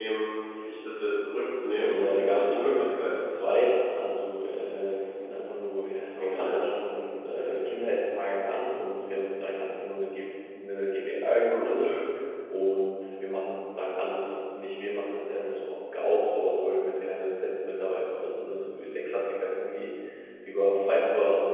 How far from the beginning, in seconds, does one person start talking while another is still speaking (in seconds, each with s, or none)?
1.8 s